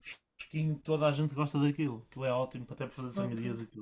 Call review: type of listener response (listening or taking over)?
taking over